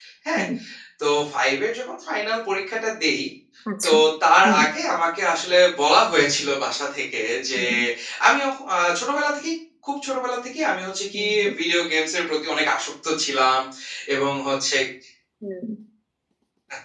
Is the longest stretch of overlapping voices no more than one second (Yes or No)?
Yes